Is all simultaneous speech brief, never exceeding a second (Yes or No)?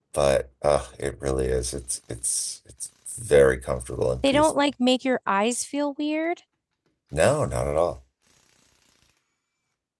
Yes